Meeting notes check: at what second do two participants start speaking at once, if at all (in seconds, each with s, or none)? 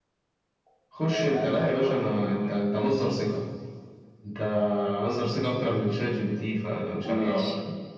1.0 s